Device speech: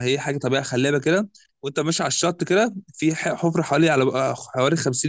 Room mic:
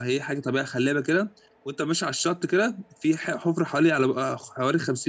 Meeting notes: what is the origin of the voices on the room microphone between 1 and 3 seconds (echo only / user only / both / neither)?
echo only